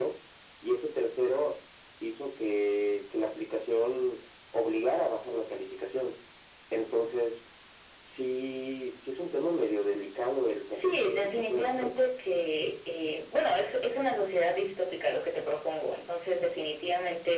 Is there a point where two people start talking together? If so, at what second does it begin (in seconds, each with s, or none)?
10.7 s